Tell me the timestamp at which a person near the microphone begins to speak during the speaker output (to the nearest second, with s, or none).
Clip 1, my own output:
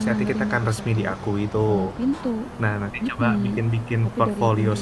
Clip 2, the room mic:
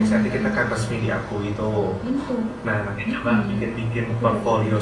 none